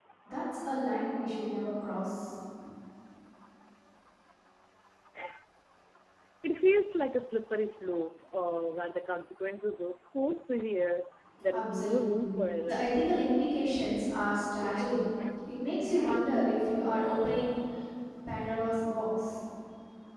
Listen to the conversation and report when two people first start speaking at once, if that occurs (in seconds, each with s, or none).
11.5 s